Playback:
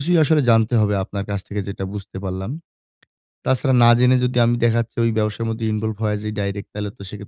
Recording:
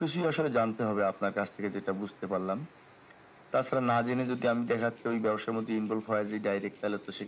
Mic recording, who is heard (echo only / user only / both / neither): echo only